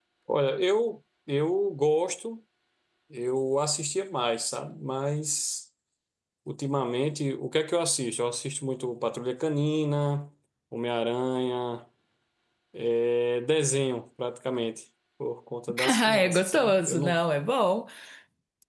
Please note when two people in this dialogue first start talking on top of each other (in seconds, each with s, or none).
15.9 s